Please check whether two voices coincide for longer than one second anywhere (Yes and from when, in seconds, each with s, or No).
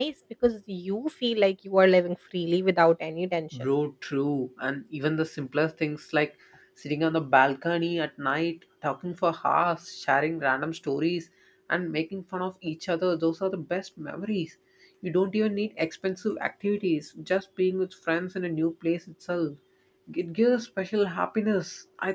No